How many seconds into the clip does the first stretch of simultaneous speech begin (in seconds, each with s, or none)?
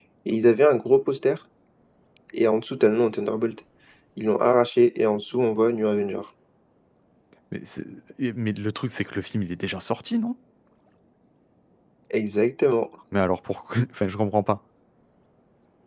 none